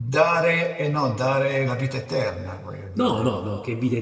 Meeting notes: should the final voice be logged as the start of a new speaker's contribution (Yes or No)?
Yes